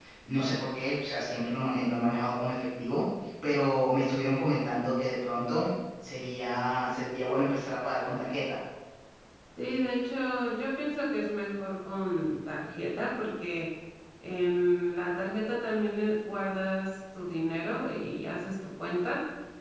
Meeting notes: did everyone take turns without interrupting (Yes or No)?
Yes